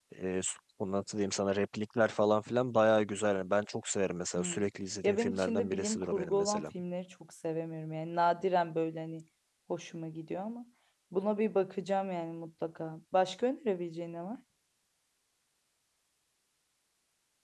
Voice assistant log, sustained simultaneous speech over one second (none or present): present